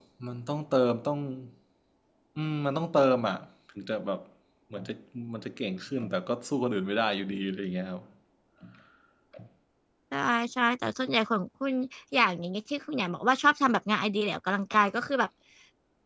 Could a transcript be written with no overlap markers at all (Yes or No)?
Yes